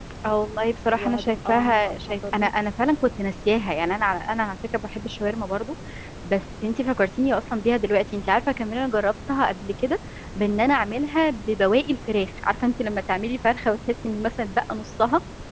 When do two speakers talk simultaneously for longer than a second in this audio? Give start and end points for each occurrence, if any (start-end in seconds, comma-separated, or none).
0.9-2.5